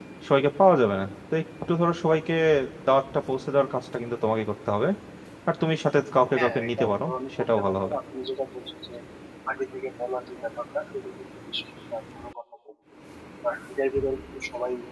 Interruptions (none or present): present